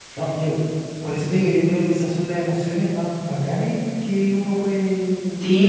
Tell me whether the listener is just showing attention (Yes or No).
No